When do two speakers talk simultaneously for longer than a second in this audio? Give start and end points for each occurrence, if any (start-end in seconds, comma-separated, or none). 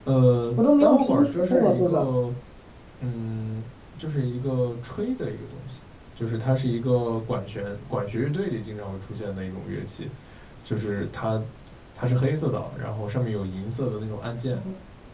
0.6-2.1